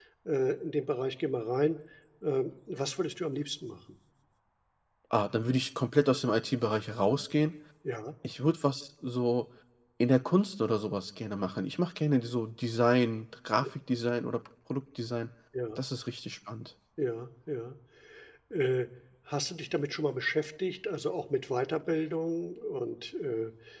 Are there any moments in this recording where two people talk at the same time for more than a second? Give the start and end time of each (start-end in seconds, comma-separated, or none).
none